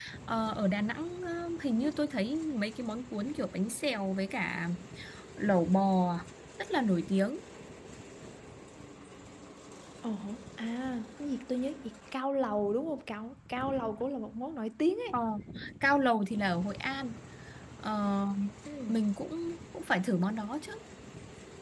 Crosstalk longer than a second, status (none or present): none